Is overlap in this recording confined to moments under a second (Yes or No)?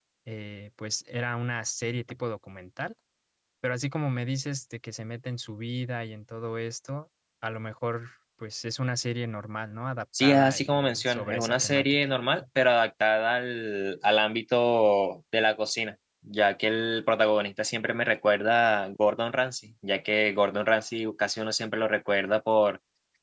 No